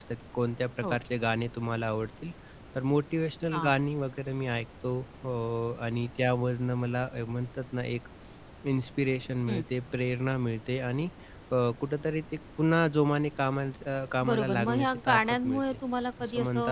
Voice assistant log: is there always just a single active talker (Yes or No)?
No